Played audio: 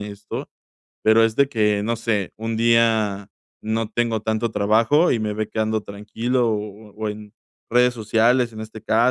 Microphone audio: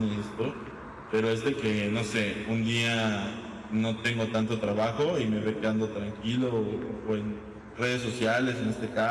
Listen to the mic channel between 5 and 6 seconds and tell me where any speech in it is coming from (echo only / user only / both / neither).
echo only